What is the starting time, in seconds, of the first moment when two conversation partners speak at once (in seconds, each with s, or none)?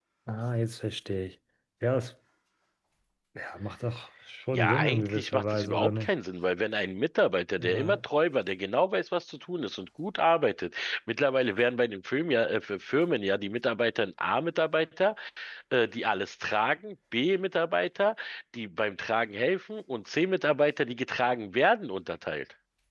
4.5 s